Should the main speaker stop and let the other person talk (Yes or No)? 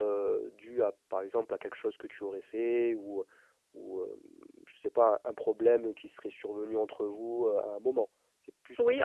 Yes